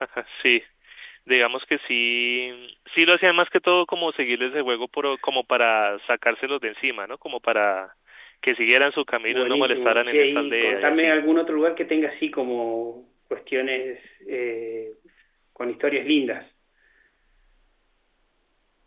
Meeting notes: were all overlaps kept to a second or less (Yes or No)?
No